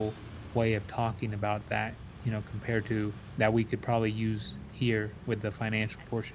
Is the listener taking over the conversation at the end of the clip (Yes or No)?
Yes